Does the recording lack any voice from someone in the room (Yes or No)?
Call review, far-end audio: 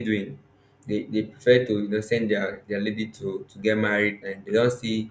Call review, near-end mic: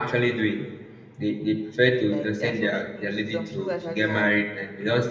No